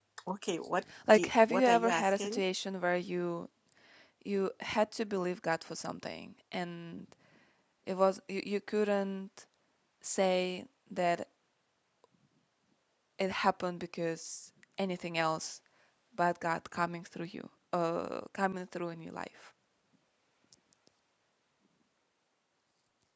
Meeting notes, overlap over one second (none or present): present